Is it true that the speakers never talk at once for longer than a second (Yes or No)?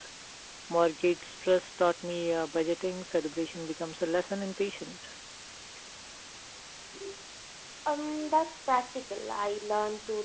Yes